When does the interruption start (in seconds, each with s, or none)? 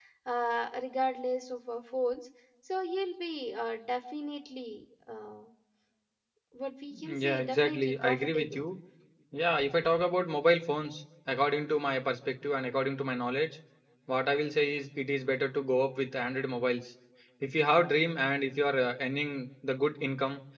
7.0 s